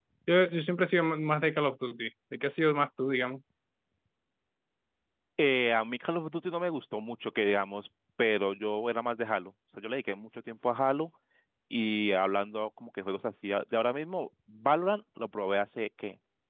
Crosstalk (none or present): none